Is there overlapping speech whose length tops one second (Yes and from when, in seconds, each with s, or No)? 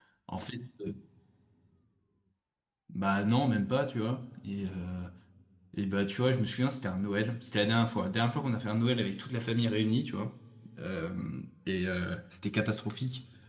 No